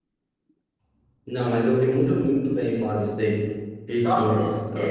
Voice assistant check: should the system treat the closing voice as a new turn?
Yes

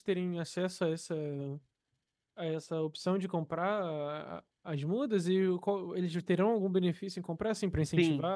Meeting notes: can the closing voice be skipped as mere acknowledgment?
No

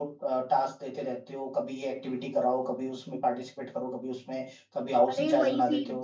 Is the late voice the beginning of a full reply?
Yes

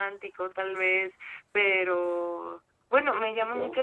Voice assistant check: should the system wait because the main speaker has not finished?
Yes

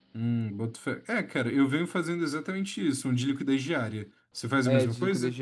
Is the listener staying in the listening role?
No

